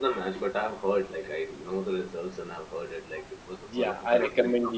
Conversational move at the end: taking over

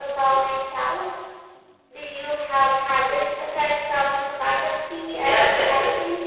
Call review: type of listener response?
taking over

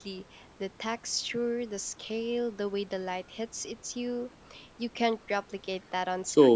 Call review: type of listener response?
taking over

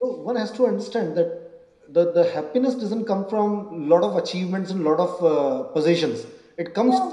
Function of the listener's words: listening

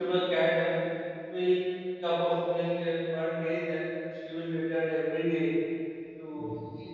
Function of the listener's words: listening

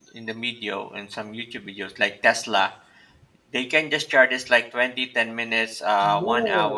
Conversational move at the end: taking over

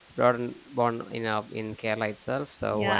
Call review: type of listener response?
taking over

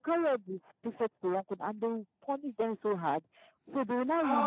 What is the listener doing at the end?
listening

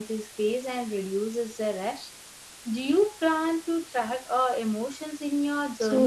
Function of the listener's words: taking over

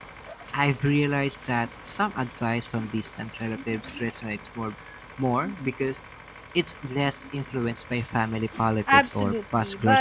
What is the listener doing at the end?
taking over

